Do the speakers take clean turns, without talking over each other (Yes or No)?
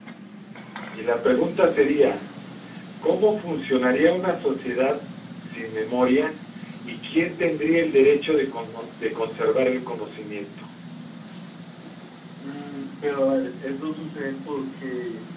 Yes